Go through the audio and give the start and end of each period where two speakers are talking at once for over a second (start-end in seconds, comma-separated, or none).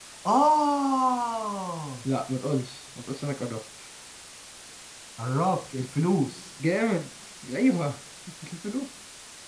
none